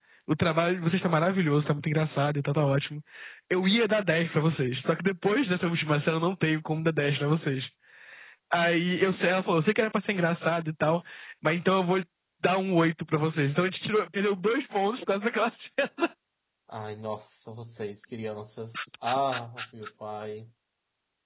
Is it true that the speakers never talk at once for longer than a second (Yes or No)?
Yes